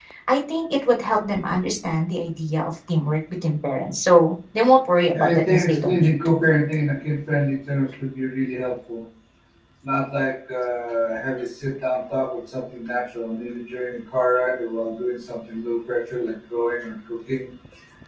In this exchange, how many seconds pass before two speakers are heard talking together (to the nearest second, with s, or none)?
5 s